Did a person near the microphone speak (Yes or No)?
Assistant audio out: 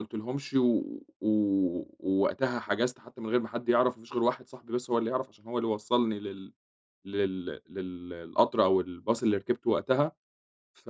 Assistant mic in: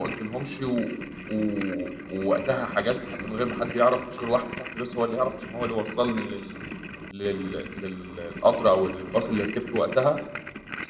No